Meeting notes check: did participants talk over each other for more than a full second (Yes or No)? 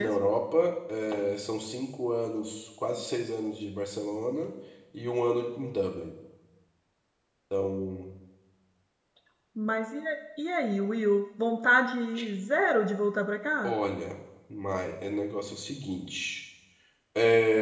No